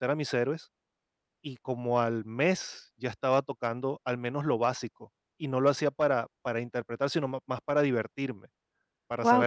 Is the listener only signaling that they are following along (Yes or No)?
No